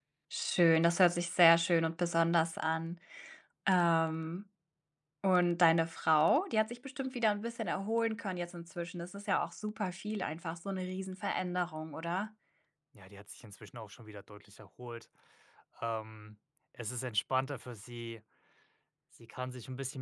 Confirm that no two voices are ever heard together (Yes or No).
Yes